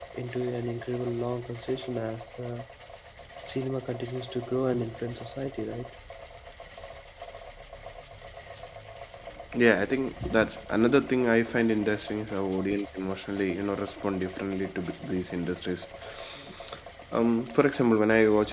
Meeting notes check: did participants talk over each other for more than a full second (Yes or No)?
No